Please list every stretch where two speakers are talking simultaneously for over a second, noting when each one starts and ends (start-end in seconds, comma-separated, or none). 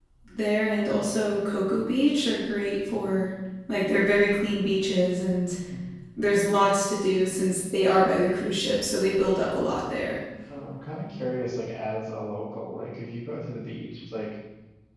none